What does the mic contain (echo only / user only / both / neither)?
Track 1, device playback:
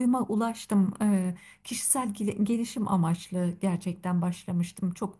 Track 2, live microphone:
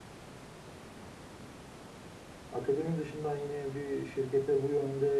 user only